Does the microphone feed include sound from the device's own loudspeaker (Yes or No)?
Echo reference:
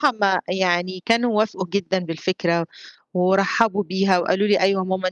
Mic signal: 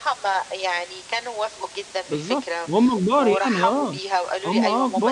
Yes